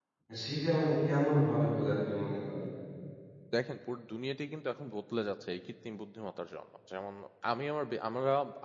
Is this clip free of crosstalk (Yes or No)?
Yes